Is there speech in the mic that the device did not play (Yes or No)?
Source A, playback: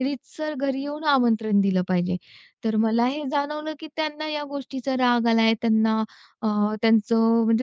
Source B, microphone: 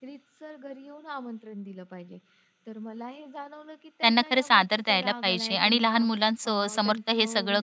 Yes